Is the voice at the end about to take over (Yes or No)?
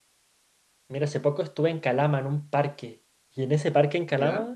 No